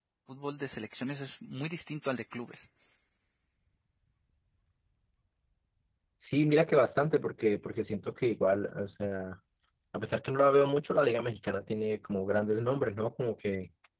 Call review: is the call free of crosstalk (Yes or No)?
Yes